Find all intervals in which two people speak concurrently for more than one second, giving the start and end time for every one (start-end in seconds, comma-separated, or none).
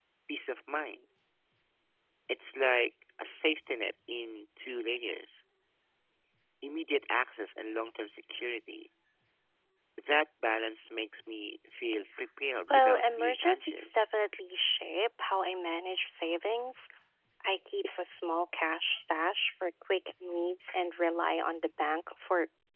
12.7-14.0